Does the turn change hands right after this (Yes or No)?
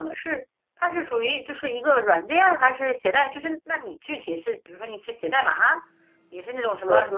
No